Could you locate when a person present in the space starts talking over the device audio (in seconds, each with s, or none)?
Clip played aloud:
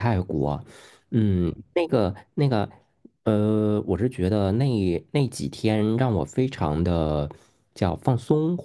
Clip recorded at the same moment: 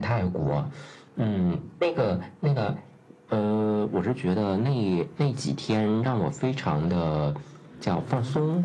none